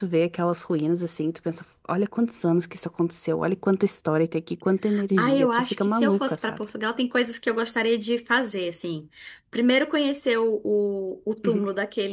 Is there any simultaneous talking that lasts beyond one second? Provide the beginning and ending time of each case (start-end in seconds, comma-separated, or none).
5.2-6.6